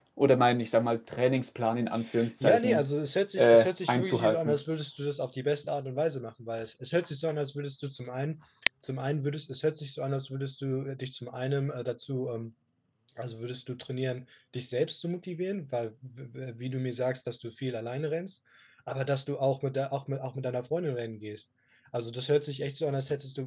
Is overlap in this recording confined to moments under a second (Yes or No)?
No